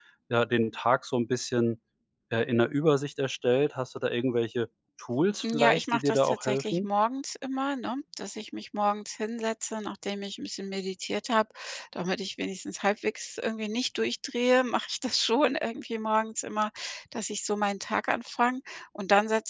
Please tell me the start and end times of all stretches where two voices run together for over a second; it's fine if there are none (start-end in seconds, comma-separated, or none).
5.4-6.9